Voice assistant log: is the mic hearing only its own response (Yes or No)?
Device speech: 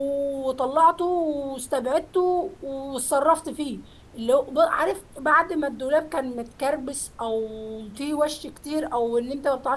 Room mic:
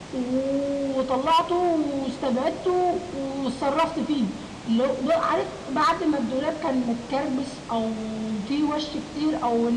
Yes